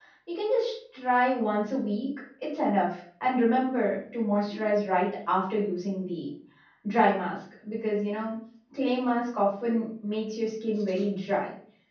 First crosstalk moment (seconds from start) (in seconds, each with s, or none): none